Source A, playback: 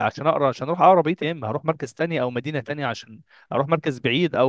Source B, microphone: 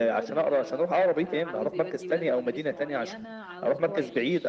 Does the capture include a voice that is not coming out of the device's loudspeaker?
Yes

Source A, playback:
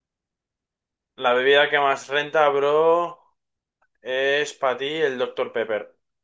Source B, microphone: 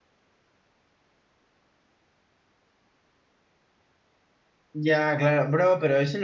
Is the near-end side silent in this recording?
No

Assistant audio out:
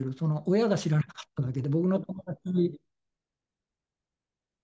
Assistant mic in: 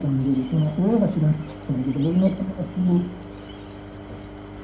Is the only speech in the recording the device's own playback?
Yes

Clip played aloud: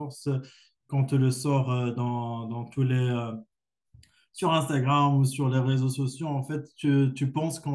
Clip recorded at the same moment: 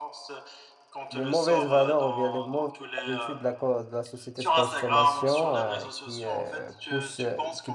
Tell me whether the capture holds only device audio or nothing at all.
No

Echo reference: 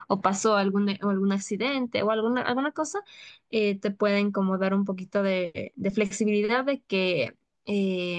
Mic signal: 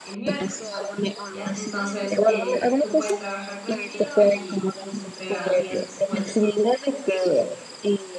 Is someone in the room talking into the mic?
Yes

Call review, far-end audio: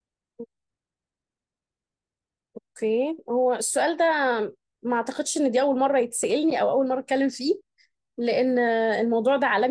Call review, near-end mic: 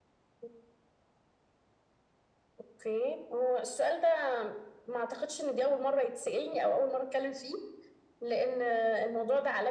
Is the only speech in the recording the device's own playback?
Yes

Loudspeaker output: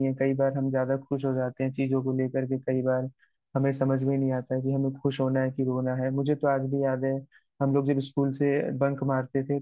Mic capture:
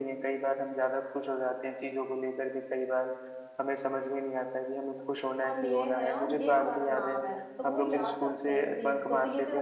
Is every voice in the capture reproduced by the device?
No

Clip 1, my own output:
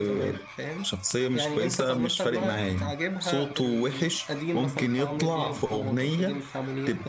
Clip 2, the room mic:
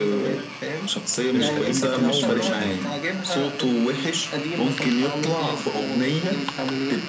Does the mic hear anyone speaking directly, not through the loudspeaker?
Yes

